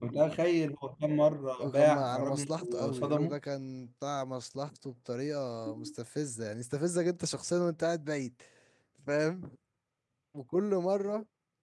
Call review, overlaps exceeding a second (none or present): present